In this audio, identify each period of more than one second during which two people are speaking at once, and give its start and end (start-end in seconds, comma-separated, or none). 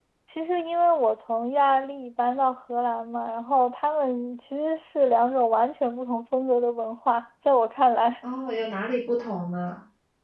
none